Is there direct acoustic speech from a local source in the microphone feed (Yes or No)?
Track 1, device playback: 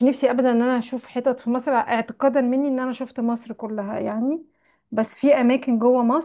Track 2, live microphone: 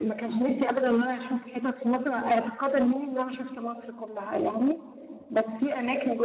No